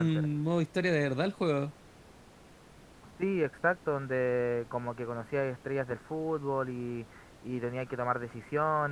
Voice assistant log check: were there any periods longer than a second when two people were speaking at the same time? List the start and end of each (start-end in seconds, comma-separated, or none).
none